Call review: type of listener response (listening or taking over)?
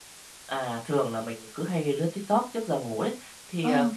listening